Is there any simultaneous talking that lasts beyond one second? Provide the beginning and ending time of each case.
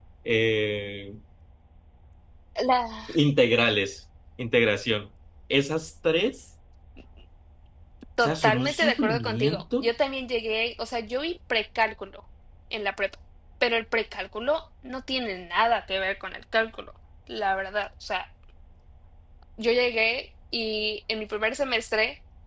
8.2-9.9

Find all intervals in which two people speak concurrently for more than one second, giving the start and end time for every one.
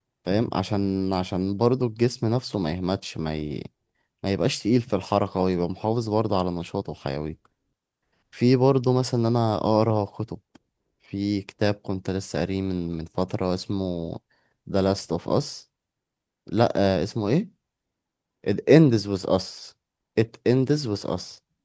none

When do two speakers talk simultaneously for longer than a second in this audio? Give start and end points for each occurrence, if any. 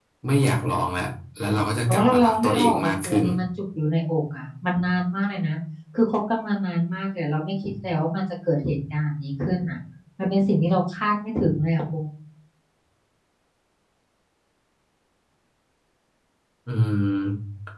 1.9-3.2

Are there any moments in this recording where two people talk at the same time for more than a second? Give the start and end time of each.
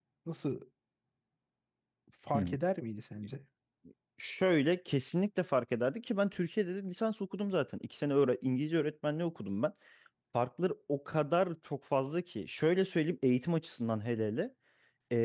none

